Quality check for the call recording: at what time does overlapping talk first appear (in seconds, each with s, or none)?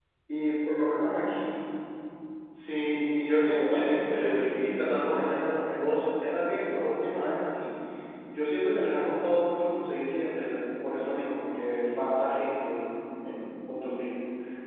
3.4 s